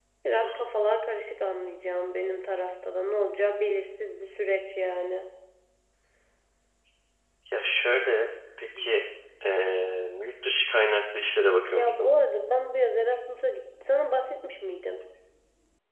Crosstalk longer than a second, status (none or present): none